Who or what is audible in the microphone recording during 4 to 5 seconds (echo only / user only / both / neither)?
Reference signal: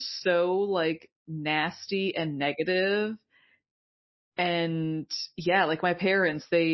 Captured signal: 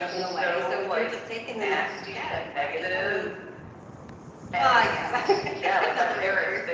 both